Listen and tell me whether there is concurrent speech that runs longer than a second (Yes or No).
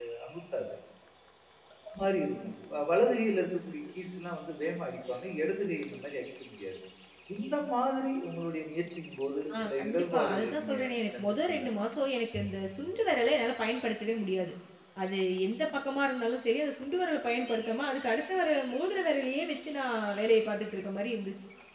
Yes